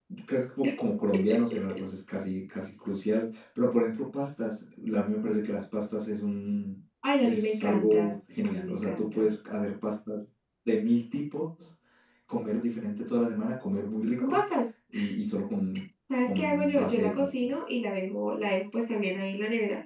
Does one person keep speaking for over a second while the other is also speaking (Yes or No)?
Yes